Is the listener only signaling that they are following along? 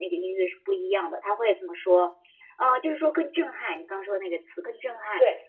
No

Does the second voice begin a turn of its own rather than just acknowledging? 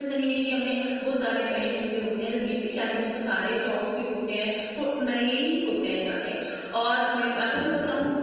No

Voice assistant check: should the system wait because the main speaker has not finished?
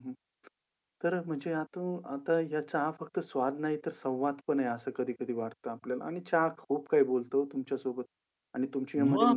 Yes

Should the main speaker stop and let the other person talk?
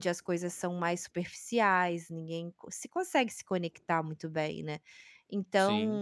No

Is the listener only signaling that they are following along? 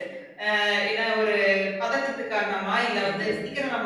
Yes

